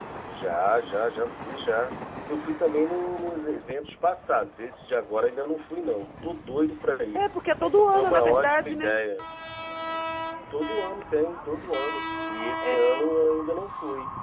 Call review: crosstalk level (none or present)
present